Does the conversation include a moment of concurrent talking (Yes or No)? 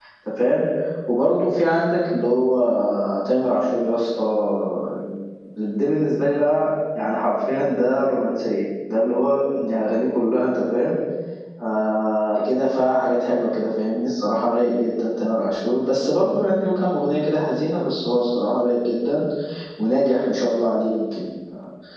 No